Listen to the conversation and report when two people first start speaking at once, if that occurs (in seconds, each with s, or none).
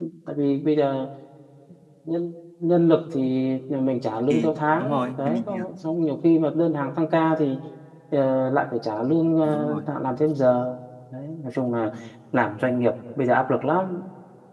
4.3 s